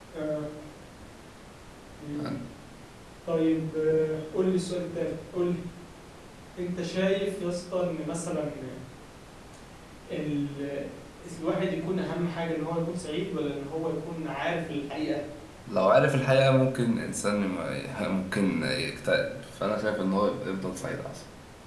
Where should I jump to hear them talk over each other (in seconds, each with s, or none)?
none